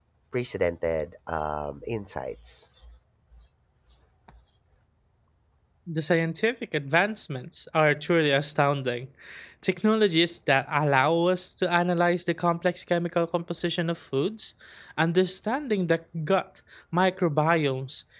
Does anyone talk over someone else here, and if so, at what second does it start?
none

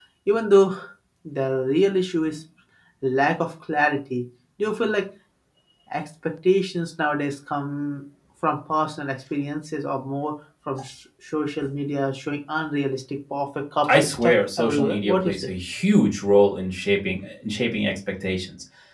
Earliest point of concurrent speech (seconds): 13.8 s

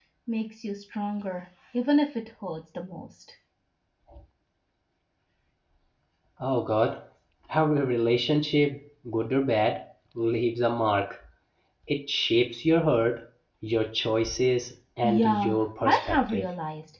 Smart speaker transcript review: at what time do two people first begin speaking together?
15.0 s

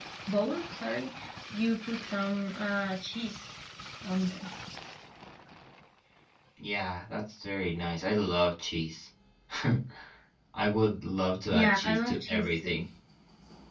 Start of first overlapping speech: 11.5 s

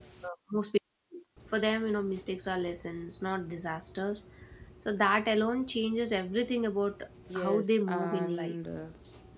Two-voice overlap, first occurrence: 7.3 s

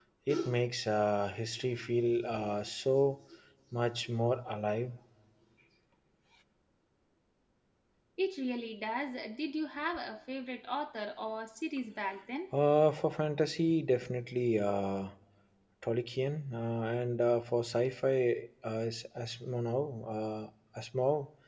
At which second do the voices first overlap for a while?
none

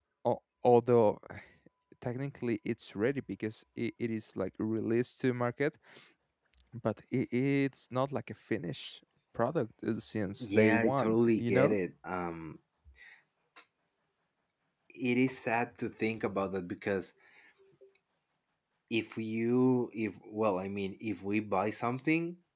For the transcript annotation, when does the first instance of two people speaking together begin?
10.4 s

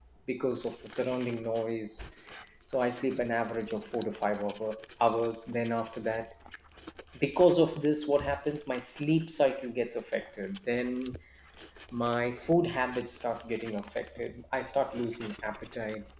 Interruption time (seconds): none

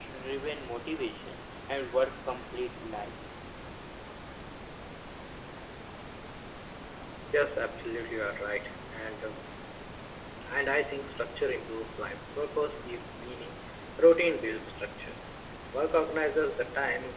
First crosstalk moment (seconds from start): none

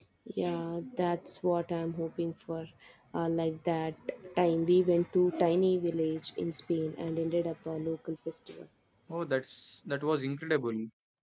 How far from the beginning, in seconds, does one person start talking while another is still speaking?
none

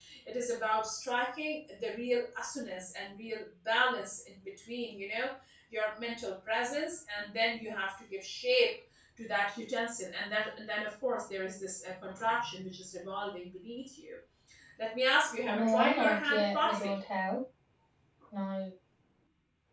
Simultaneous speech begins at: 15.5 s

